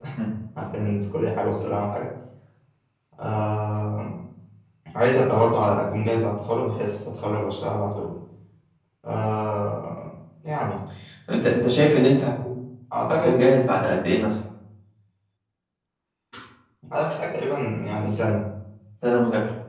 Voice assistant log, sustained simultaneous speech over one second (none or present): none